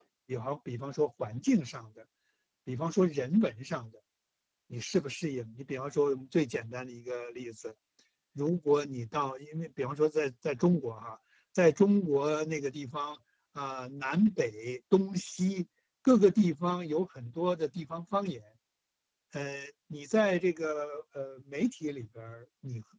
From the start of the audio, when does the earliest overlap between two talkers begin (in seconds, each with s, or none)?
none